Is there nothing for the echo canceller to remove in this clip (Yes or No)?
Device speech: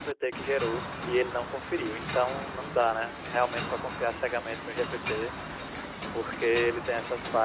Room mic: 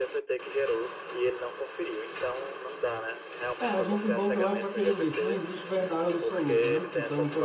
No